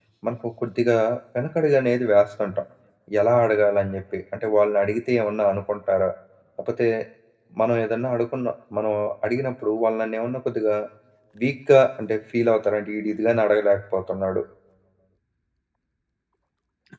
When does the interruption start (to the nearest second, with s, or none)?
none